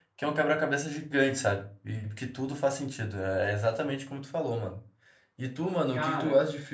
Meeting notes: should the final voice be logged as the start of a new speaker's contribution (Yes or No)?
No